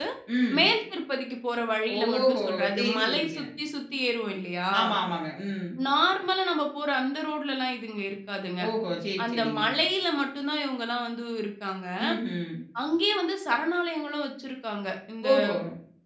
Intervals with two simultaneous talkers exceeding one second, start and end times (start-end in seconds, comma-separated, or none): 2.0-3.4